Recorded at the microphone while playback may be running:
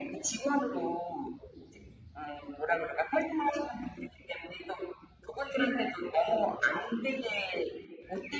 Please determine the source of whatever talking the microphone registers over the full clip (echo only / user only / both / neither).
echo only